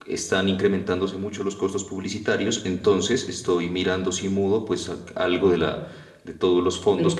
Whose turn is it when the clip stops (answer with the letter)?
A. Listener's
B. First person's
A